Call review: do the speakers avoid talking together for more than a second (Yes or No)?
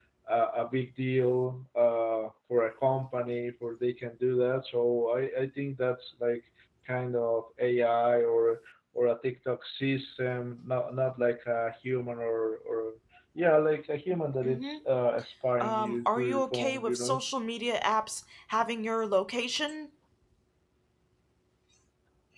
No